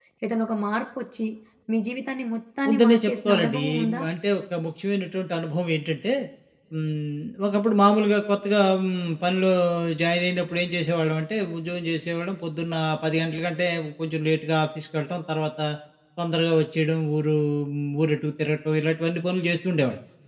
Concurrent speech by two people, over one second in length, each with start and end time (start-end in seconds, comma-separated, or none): 2.7-4.0